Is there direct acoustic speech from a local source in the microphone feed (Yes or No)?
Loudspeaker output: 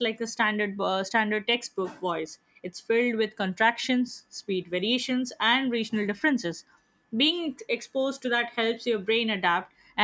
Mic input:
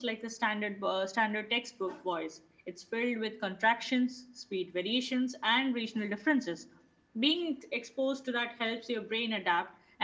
No